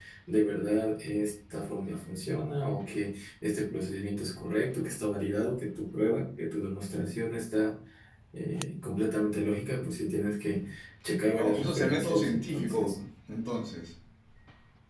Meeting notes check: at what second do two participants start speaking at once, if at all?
11.4 s

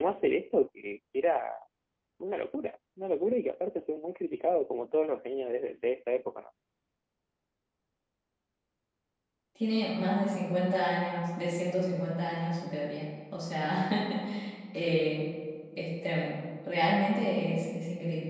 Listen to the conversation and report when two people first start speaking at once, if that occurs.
none

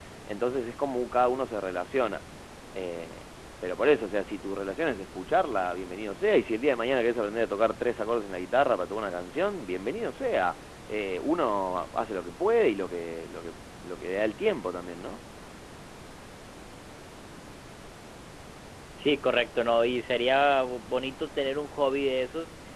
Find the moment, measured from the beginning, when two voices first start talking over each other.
none

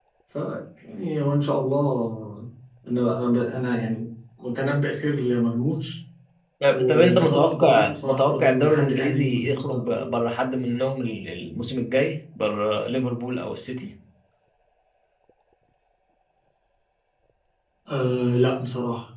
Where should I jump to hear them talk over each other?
6.7 s

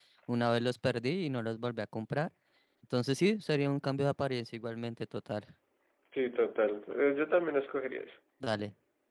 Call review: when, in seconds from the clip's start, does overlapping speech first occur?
none

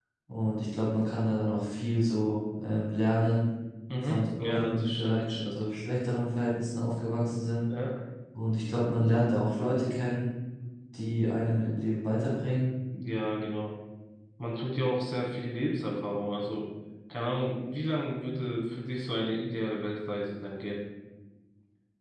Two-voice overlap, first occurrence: 4.0 s

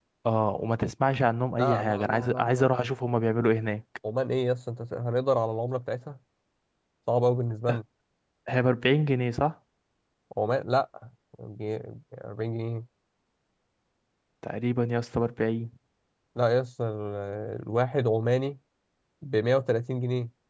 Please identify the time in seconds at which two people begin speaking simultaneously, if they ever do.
1.6 s

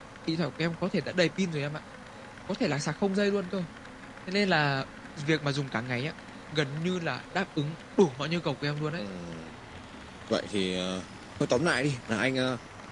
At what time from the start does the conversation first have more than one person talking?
none

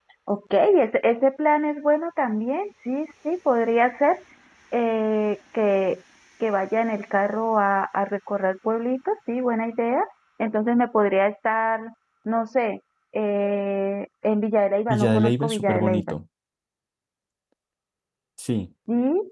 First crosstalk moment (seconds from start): 14.9 s

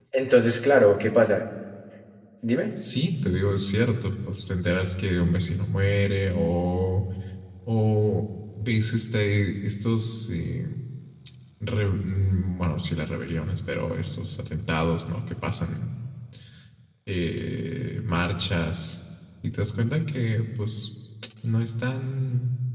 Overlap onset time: none

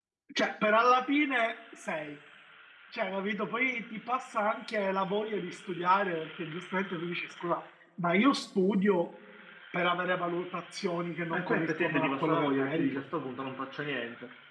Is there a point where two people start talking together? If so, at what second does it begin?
11.3 s

